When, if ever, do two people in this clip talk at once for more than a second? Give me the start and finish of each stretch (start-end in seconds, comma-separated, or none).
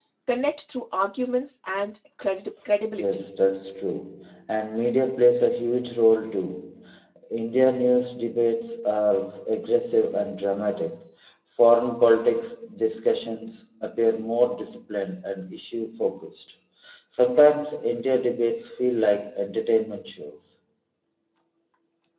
none